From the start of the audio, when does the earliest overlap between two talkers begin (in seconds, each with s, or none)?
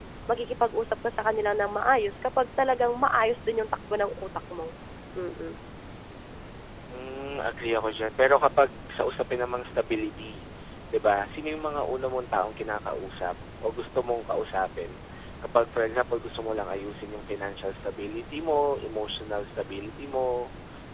none